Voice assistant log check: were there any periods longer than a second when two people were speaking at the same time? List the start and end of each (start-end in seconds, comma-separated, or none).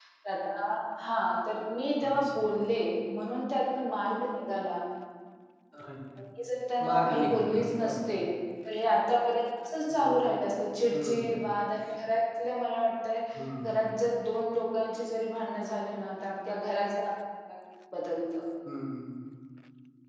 6.9-8.2